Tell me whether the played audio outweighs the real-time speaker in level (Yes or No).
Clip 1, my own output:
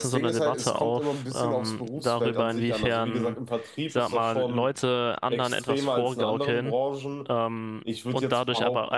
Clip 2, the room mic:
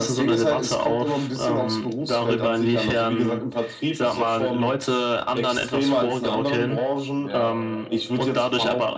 Yes